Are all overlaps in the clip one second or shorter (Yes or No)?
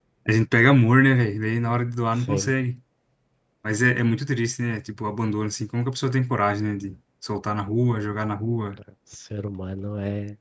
Yes